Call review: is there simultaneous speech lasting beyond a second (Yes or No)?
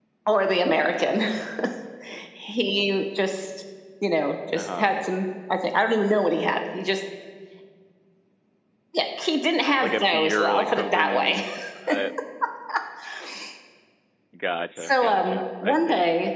Yes